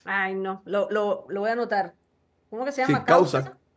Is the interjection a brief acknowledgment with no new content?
No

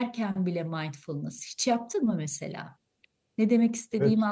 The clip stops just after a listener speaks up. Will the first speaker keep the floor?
No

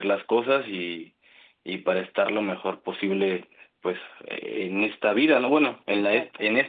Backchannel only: Yes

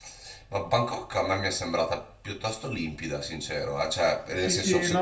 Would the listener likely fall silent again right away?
No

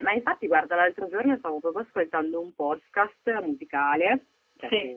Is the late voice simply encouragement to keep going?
Yes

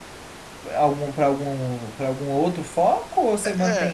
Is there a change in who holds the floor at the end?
Yes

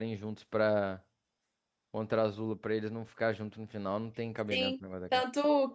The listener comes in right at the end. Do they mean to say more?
Yes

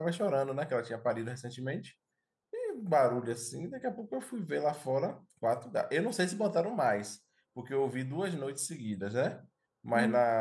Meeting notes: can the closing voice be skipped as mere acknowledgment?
Yes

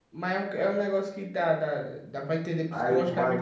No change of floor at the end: No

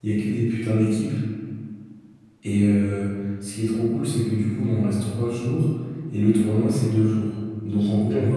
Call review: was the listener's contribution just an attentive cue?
Yes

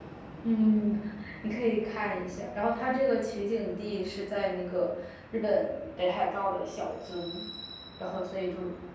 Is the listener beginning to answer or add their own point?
No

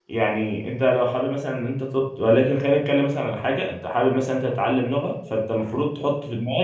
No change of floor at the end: Yes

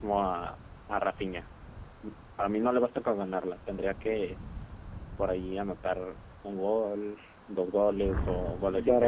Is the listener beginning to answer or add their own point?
Yes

